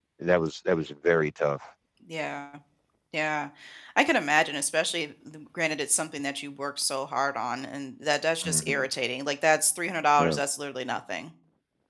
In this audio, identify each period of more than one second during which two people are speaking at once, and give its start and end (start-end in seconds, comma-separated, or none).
none